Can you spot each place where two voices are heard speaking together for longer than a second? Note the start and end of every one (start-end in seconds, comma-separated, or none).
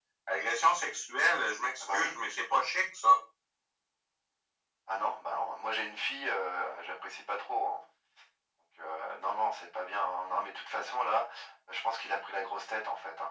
none